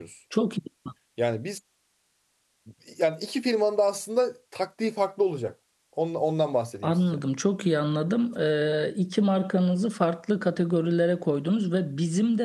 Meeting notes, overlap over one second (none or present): none